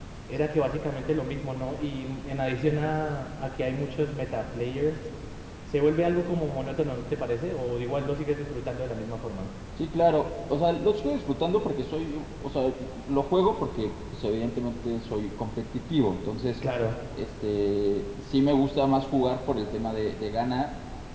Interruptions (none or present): none